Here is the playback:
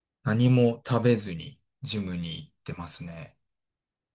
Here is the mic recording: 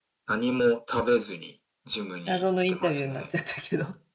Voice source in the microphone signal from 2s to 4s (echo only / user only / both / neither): both